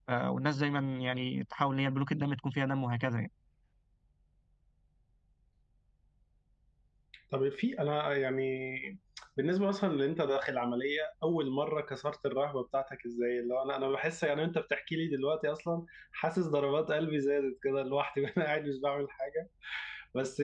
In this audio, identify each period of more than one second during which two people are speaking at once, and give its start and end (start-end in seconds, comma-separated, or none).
none